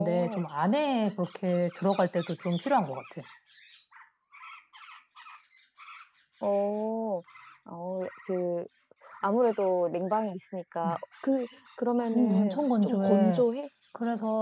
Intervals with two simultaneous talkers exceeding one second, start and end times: 12.1-13.4

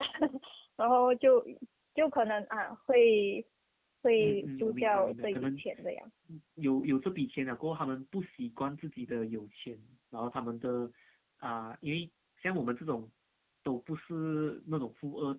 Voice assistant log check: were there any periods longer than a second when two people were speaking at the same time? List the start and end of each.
4.2-5.5

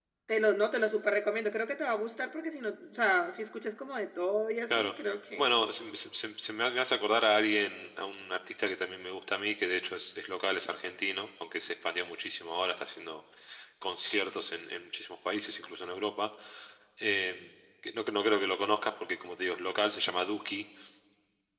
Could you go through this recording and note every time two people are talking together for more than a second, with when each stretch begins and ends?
none

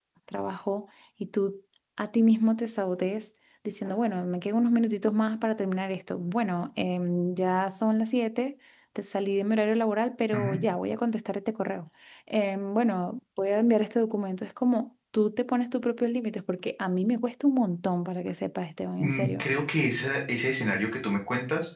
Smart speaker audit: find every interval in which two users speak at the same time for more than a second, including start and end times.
none

